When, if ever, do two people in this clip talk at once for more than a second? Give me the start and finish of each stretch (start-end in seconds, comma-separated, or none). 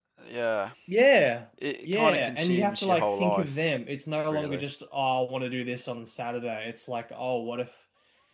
1.9-3.5